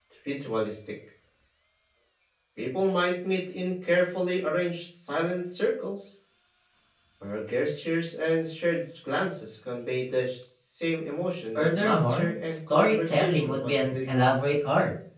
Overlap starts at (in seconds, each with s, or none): 11.6 s